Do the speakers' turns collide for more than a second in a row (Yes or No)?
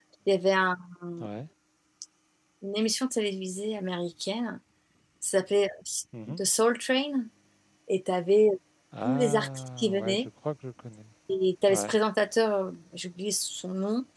Yes